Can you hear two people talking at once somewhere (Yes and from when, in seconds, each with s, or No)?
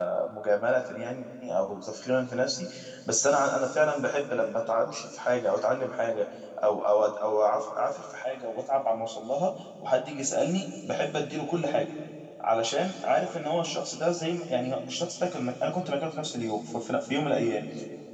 No